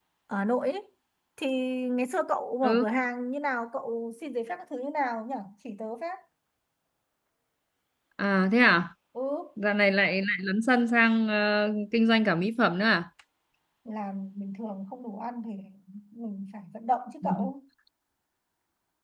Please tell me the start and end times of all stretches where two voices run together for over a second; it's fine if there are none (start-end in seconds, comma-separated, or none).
none